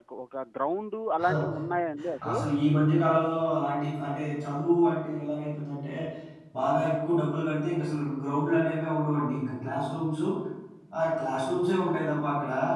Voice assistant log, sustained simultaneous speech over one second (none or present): none